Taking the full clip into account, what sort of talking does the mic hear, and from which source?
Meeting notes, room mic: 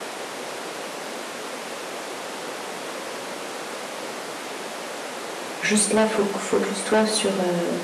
user only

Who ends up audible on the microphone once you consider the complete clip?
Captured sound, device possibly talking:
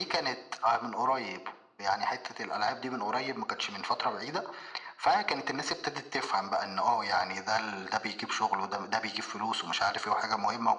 echo only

